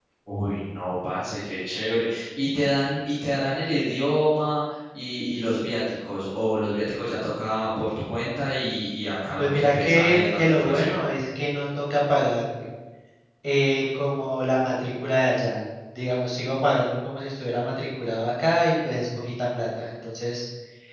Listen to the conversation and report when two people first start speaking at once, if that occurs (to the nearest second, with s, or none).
9 s